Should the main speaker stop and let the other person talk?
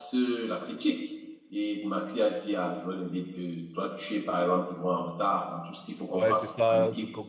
Yes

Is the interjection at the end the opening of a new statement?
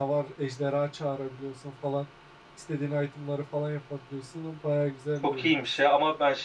Yes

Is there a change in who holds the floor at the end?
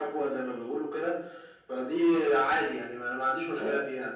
Yes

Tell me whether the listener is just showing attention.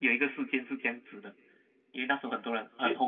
Yes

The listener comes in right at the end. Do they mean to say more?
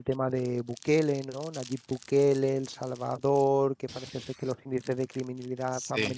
No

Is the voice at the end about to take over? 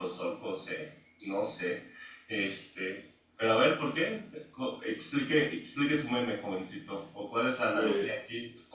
No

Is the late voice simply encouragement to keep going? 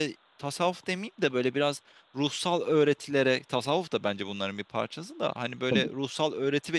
Yes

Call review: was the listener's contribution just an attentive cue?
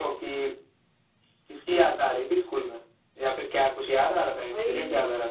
No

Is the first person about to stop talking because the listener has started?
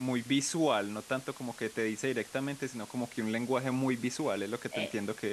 Yes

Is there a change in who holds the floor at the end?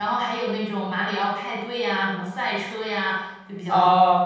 Yes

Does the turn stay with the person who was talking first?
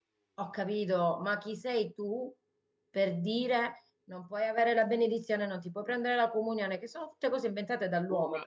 Yes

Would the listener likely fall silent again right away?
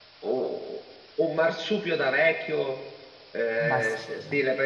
Yes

